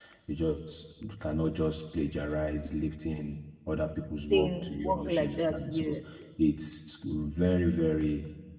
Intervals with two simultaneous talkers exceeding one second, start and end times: 4.3-6.0

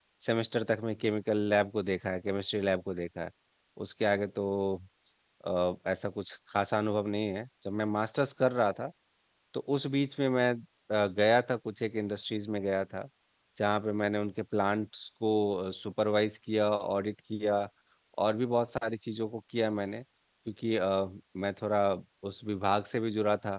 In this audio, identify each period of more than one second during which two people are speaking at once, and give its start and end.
none

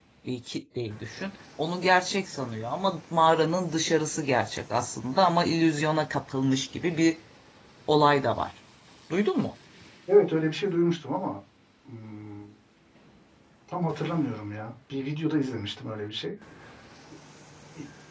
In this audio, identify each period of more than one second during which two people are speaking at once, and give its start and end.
none

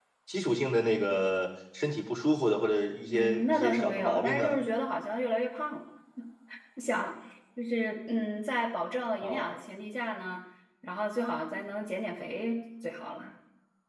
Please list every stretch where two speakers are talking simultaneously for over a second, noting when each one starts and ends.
3.1-4.5

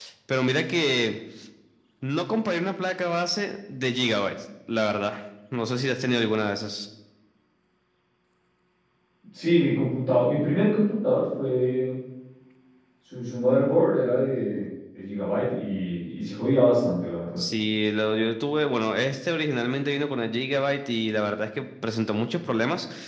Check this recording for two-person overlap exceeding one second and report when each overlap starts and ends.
none

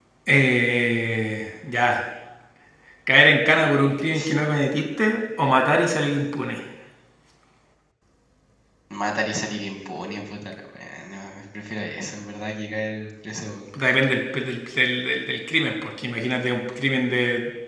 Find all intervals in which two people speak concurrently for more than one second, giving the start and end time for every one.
none

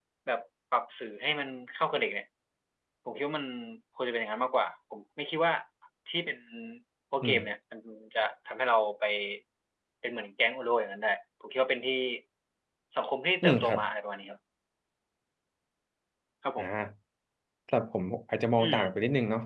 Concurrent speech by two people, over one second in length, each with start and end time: none

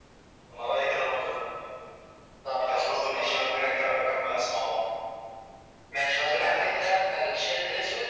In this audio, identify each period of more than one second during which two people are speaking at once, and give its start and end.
2.6-4.0

